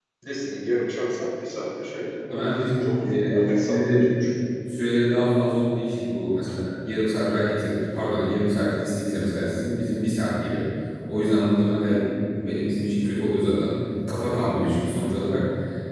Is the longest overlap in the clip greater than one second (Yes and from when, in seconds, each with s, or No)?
No